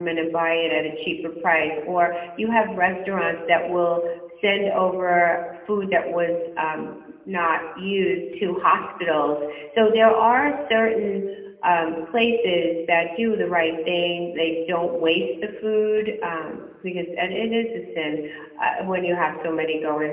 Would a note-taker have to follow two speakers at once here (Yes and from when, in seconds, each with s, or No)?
No